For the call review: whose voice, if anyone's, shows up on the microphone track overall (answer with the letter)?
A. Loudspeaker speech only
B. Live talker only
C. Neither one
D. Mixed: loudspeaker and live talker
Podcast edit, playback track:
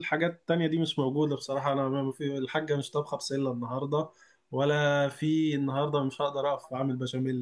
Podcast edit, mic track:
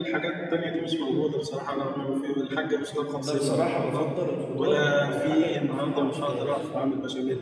D